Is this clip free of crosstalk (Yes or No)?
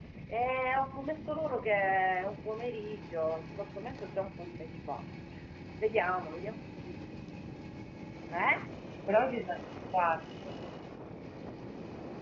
Yes